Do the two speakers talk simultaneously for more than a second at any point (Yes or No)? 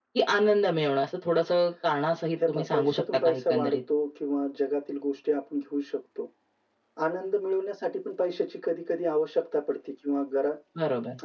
Yes